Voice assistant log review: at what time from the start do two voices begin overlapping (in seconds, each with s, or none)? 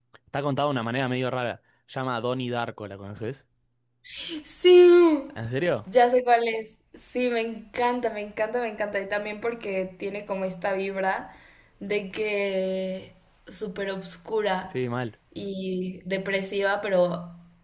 none